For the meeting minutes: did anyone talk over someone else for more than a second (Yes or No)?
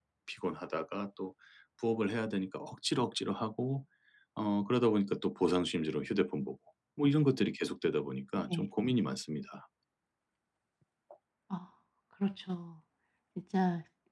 No